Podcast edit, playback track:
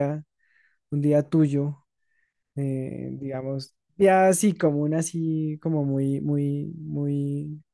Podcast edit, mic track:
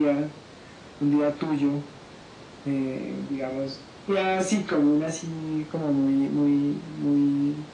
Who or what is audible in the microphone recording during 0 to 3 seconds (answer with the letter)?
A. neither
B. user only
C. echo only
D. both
C